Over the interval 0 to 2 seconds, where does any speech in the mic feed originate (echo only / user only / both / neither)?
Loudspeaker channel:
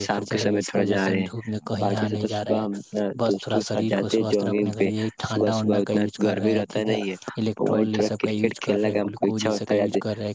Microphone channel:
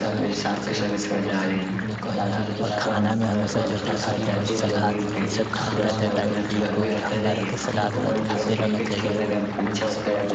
echo only